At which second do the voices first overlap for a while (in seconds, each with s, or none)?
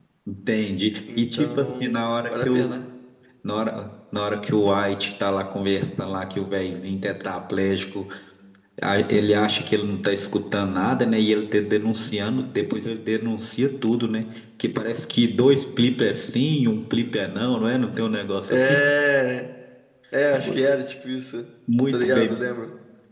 1.2 s